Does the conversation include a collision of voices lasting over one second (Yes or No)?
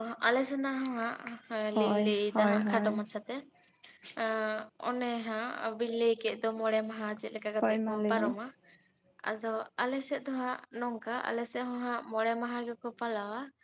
Yes